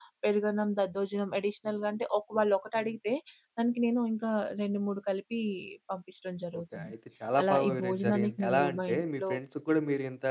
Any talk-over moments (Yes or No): Yes